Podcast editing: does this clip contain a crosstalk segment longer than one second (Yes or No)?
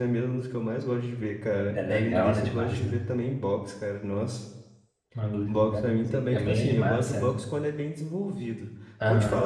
Yes